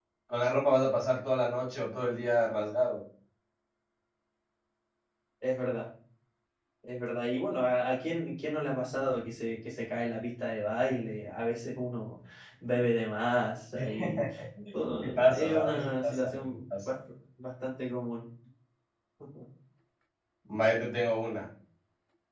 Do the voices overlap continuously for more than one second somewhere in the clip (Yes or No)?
Yes